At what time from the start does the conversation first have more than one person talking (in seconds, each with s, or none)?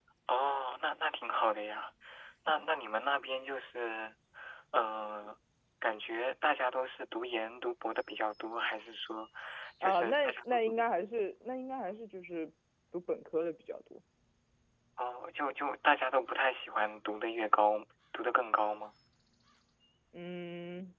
9.8 s